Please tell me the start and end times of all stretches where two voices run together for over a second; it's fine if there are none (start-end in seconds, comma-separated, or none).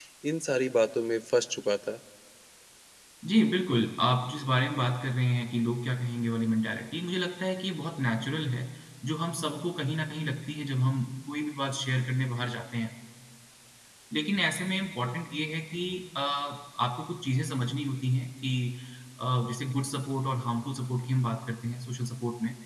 none